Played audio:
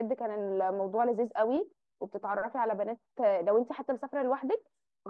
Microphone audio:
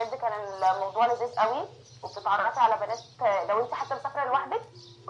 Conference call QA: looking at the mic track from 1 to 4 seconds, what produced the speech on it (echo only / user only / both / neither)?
echo only